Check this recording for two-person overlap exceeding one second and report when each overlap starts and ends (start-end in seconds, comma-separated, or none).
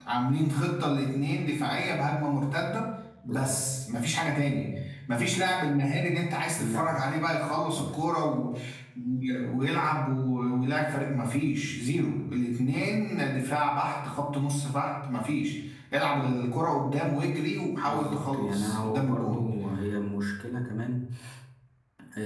17.9-19.4